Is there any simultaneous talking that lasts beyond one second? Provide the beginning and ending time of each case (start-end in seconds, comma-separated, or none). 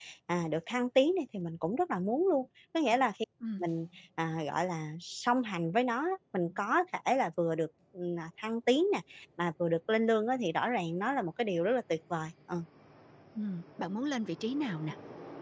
none